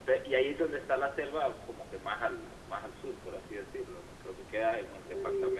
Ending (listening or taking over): listening